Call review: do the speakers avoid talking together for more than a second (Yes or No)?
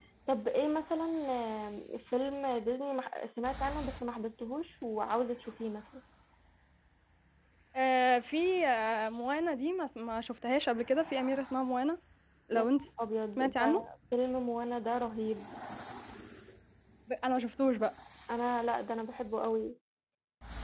Yes